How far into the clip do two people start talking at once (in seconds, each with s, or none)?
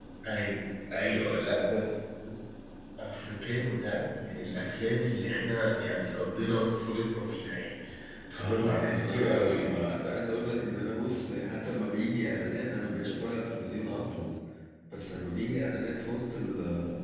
8.4 s